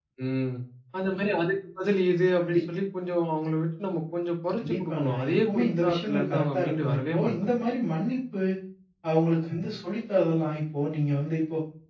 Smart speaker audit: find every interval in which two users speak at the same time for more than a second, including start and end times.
4.7-7.3

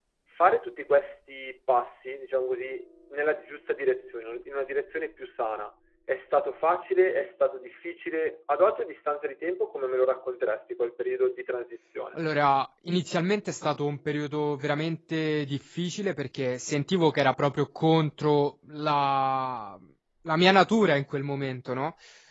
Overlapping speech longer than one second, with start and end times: none

